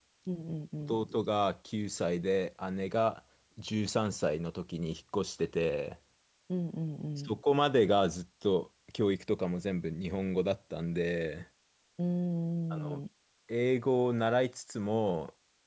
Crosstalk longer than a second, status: none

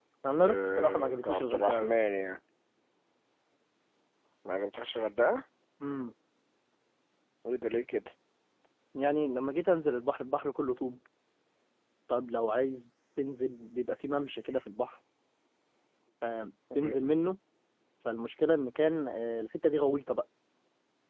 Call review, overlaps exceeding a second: present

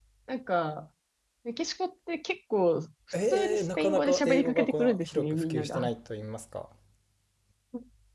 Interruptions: present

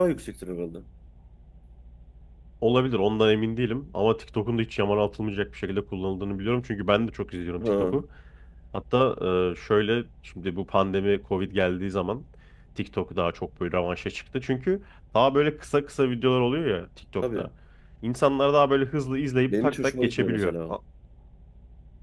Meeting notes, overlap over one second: present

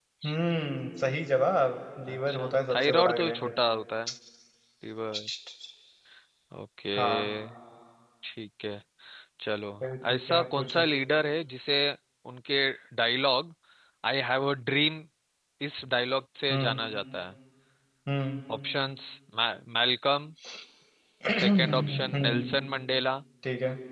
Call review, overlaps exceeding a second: present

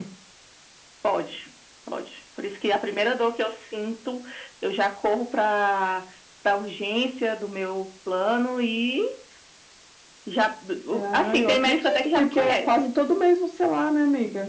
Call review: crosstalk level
present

